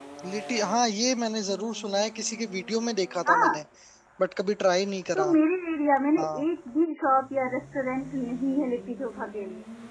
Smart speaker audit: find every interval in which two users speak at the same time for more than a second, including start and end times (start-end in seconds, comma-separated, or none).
none